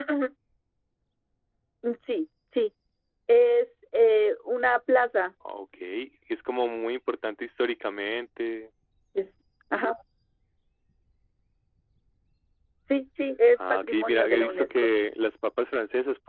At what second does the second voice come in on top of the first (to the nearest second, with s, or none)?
14 s